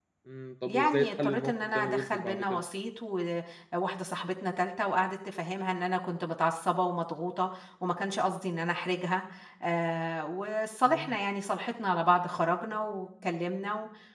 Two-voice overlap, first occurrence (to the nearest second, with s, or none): 1 s